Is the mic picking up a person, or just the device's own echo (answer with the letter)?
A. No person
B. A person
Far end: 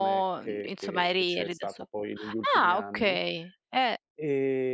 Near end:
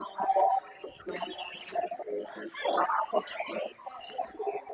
A